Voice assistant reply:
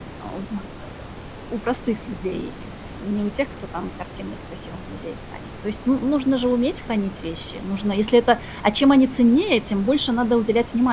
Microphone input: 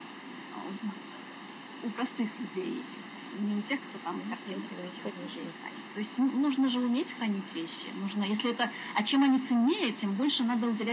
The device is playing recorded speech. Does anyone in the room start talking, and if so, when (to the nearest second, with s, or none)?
4 s